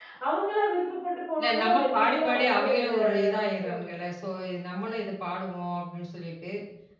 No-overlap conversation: No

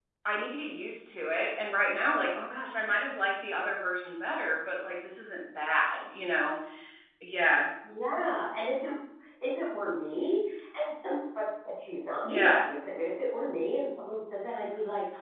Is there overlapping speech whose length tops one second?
No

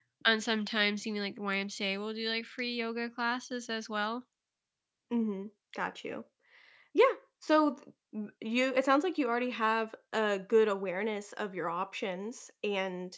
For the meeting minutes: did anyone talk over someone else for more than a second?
No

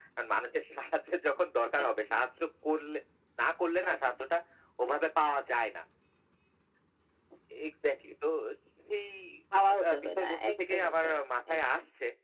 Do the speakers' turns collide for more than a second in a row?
Yes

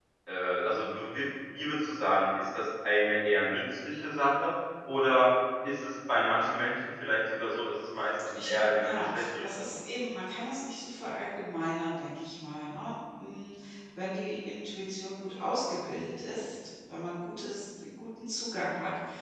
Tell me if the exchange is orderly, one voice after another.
No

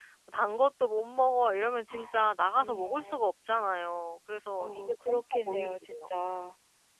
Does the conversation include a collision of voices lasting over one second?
Yes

